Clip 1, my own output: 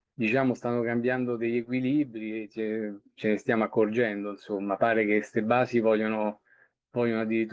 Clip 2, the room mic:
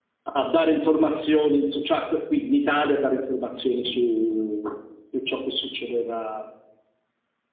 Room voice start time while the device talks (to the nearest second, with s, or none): 0 s